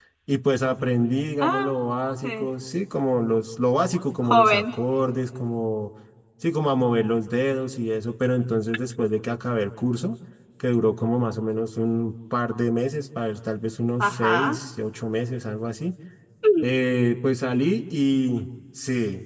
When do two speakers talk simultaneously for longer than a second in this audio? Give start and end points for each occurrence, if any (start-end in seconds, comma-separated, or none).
none